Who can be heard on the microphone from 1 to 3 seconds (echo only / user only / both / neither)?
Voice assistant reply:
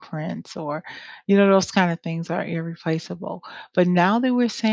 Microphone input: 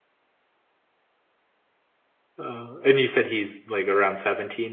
user only